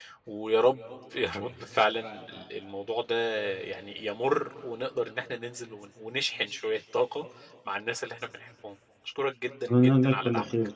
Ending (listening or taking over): taking over